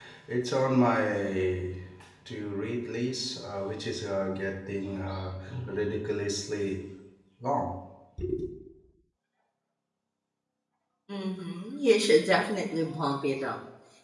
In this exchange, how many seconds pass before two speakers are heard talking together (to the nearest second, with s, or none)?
none